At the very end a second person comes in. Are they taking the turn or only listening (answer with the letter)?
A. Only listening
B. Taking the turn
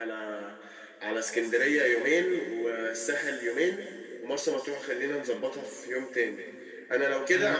A